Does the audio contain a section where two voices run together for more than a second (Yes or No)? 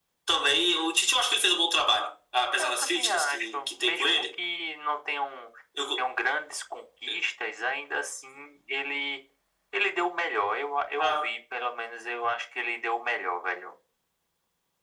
Yes